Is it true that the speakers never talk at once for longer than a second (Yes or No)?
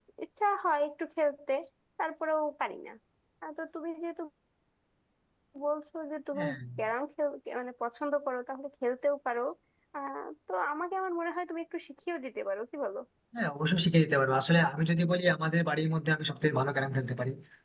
Yes